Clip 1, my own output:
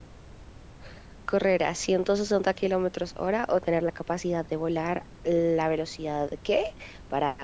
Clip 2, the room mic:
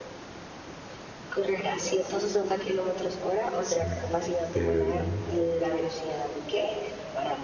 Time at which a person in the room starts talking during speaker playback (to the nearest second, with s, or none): 4 s